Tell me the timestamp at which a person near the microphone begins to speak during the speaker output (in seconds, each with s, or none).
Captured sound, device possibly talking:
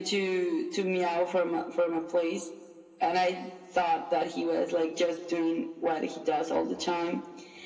none